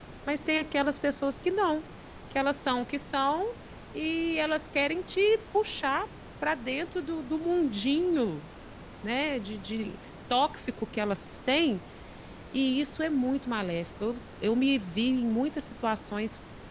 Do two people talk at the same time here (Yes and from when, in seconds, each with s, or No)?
No